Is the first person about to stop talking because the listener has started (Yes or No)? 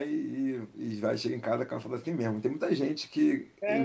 No